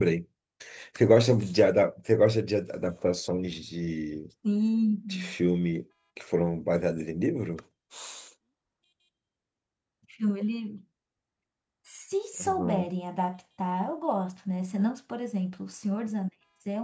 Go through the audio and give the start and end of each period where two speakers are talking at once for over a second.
none

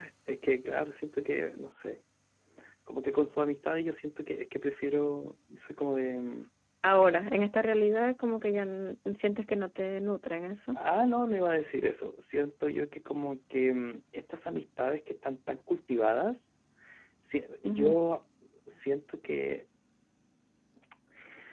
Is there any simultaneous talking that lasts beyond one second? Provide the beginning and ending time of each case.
none

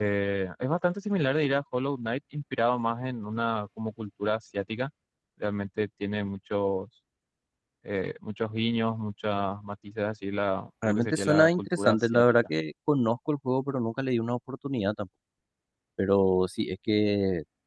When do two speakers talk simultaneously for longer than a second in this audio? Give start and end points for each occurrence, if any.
10.8-12.2

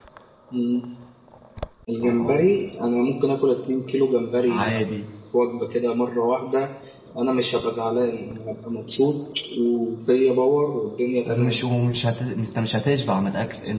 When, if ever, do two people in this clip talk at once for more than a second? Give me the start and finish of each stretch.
none

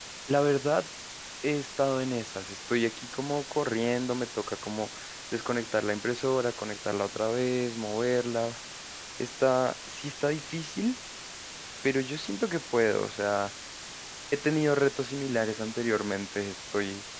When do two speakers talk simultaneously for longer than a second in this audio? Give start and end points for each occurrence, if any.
none

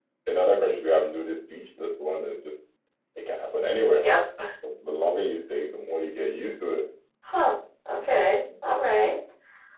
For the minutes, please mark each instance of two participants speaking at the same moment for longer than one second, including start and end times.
none

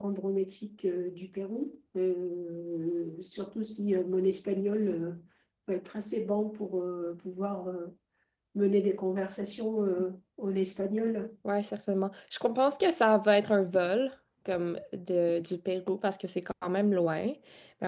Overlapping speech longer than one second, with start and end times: none

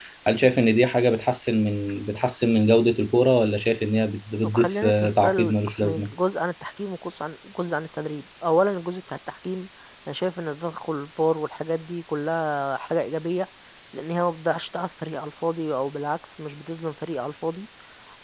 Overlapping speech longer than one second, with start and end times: 4.4-6.1

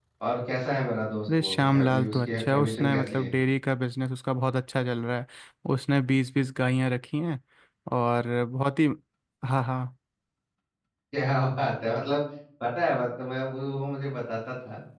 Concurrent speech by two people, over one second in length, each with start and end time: 1.4-3.3

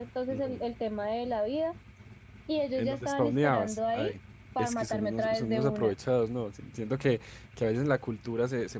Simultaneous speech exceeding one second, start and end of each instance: 2.8-4.1, 4.6-6.0

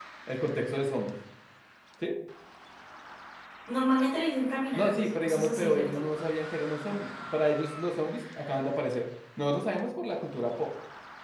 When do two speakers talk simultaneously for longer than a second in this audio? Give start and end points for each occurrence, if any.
4.7-6.0

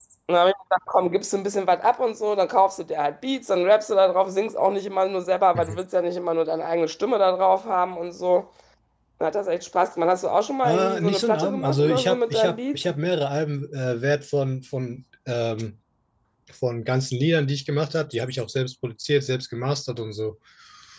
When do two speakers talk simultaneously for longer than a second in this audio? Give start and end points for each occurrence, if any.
10.6-12.8

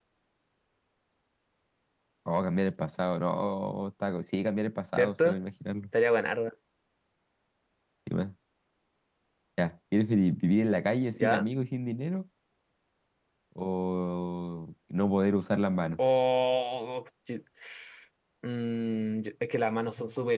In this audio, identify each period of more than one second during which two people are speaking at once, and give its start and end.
none

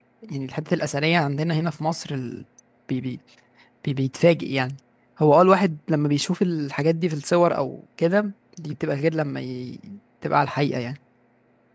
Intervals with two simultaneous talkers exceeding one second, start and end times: none

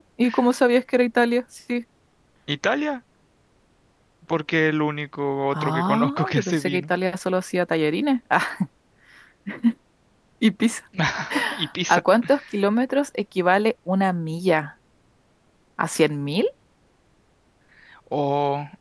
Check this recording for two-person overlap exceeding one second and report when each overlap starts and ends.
5.5-6.8

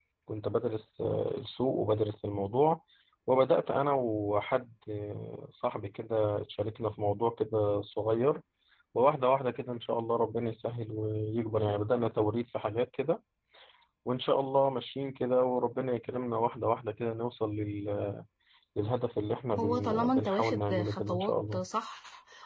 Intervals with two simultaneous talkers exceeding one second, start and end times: 19.6-21.6

